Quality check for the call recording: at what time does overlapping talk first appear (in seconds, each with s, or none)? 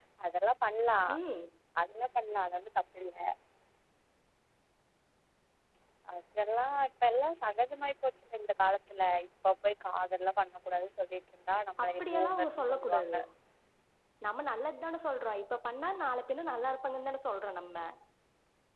11.8 s